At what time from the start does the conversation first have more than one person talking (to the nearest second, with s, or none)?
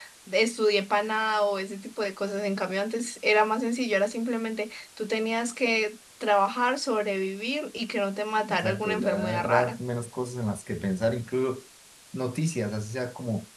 8 s